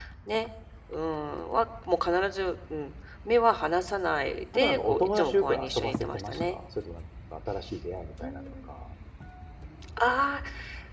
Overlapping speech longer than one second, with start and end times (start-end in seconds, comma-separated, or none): 4.5-6.6